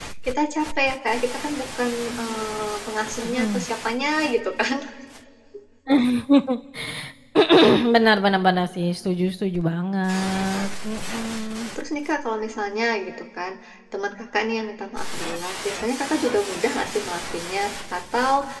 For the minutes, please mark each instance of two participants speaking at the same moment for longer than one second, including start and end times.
none

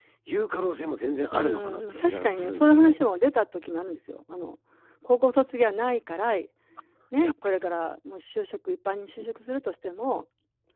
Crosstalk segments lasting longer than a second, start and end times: 1.3-3.0

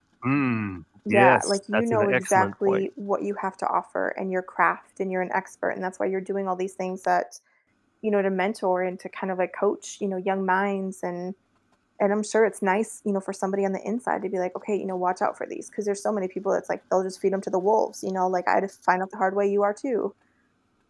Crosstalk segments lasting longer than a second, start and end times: 1.1-2.8

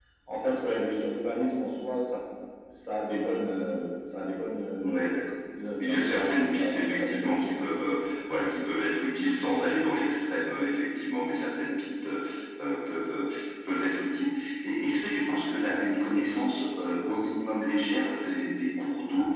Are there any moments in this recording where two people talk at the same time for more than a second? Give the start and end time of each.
5.8-7.7

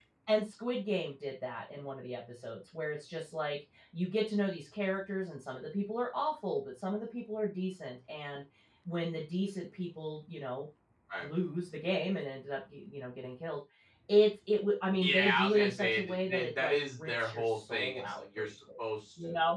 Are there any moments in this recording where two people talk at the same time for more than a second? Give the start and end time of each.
15.0-18.5

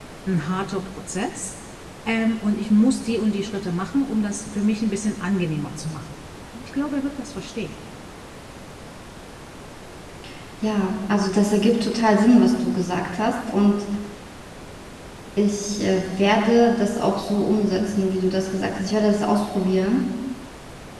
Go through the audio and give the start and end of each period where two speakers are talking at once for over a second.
none

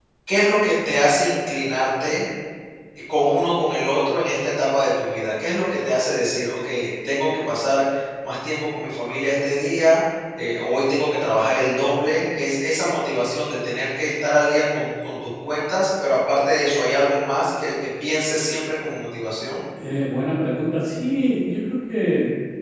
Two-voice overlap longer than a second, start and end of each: none

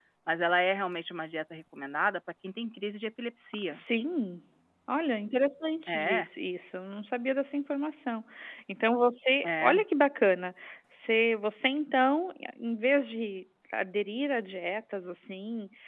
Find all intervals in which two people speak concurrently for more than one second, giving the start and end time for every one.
none

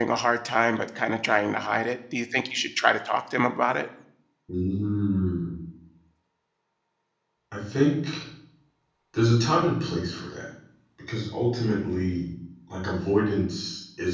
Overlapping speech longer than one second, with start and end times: none

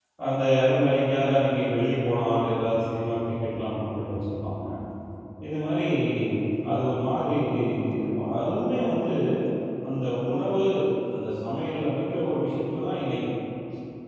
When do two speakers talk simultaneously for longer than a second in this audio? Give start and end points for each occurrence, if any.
none

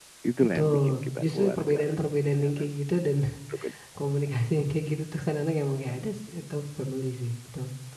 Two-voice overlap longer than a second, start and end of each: 0.6-2.0

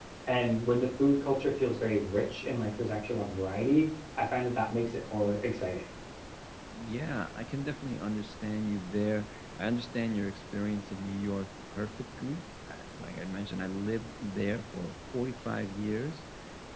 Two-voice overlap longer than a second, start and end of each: none

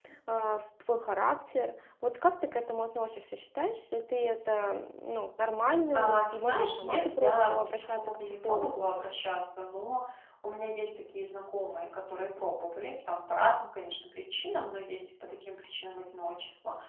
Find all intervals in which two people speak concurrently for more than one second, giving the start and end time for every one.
5.9-8.9

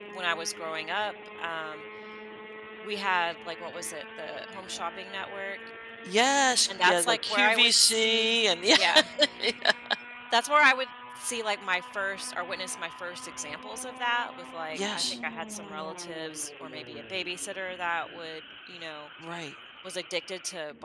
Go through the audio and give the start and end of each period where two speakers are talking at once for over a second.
6.7-8.3

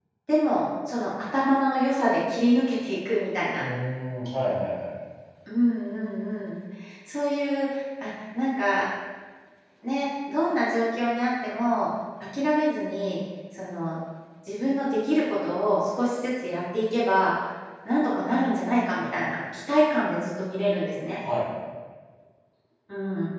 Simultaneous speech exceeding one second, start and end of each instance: none

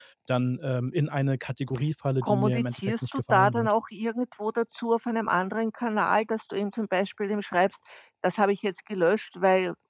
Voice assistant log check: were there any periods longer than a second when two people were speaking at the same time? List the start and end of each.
2.2-3.7

